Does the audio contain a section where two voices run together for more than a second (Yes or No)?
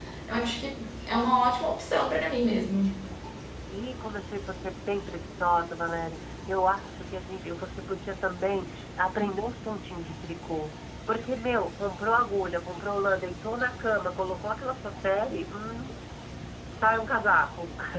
No